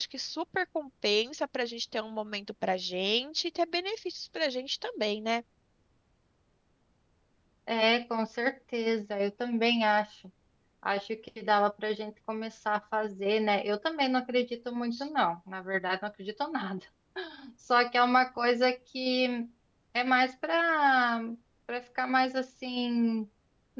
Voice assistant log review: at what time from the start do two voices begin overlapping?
none

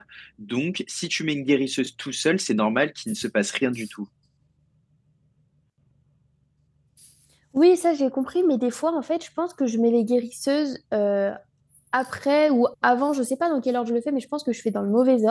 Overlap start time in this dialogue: none

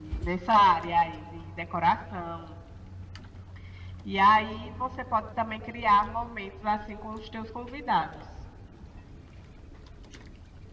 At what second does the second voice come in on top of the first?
none

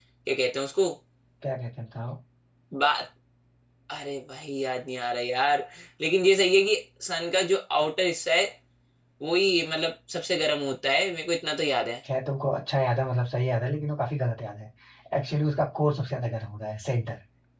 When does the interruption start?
none

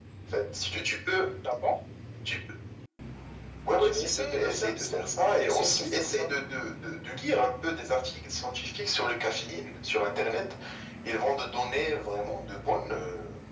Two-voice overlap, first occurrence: 4 s

